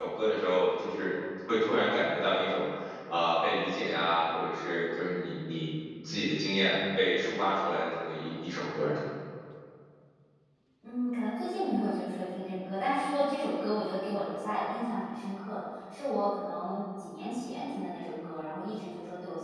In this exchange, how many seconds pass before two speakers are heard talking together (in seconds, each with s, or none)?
none